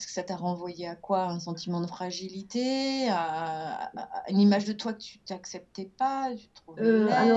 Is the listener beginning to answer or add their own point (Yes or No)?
Yes